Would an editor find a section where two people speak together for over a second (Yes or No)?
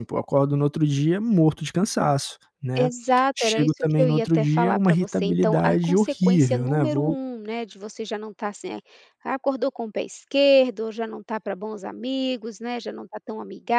Yes